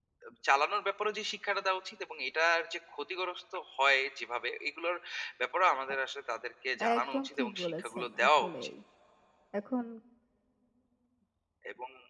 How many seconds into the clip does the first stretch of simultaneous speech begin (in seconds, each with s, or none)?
6.8 s